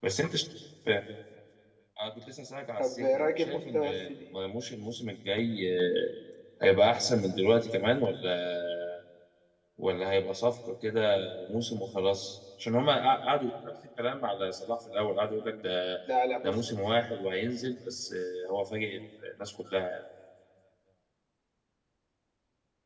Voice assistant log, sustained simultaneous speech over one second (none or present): present